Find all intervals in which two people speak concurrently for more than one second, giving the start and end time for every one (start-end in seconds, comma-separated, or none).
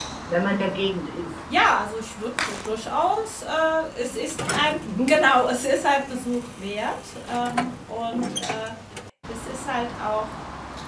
none